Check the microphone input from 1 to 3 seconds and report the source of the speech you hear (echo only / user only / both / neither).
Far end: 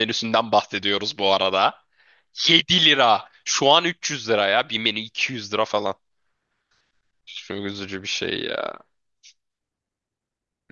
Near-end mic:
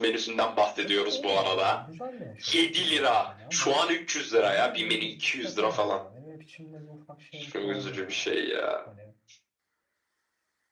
both